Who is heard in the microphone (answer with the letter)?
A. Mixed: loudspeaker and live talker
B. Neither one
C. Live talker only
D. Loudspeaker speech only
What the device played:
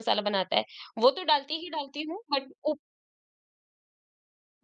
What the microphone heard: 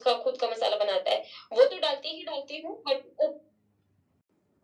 D